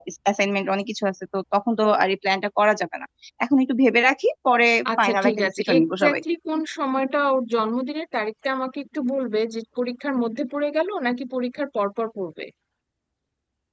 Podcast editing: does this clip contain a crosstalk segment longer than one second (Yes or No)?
Yes